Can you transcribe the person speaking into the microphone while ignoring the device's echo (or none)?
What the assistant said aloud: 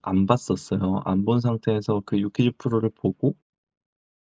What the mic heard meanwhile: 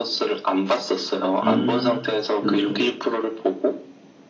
음. 그렇죠.